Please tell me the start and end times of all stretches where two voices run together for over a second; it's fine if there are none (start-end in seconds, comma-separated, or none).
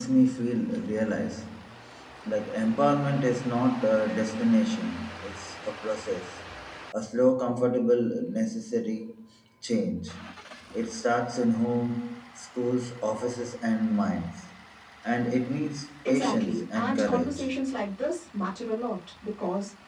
16.1-17.4